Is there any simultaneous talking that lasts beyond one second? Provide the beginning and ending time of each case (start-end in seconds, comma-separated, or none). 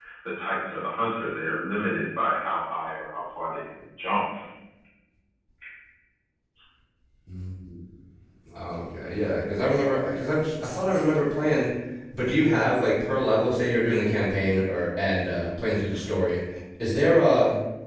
none